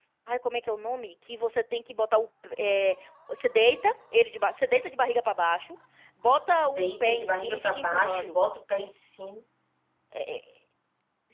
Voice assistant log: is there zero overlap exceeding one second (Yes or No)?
No